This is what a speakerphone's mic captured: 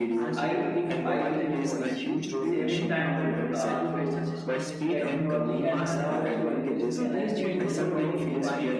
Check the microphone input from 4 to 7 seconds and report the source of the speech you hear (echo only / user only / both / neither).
both